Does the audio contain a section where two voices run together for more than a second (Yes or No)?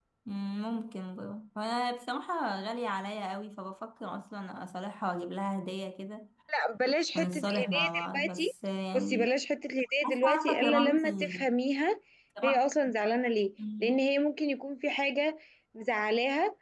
Yes